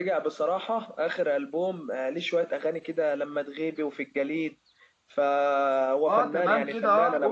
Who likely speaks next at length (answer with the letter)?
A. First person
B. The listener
B